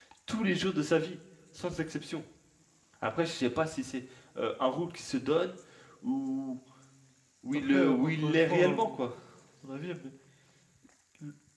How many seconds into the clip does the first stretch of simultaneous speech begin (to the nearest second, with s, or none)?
8 s